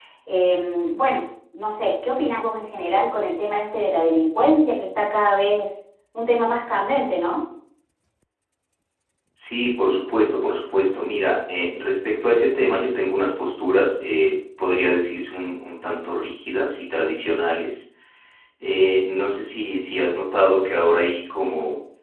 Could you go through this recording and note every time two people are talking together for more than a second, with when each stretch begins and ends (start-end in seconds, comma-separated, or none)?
none